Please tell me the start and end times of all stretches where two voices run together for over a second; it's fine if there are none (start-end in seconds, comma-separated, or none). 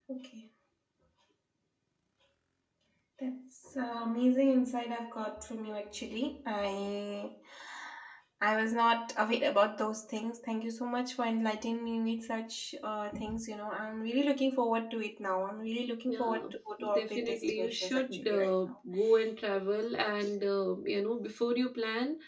16.9-18.7